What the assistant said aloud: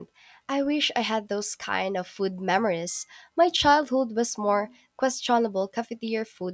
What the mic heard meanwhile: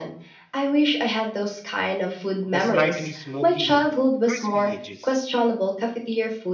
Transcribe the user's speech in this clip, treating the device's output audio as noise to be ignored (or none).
The slightly smoky, crispy edges